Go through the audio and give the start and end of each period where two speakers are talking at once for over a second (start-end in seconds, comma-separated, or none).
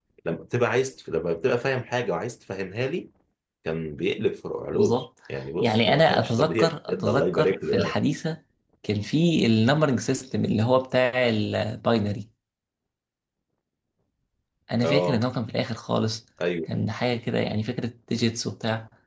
5.6-7.9